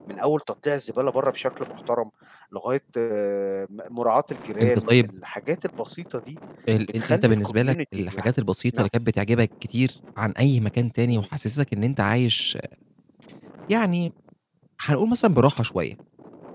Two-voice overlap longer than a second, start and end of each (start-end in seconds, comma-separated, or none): 7.0-8.3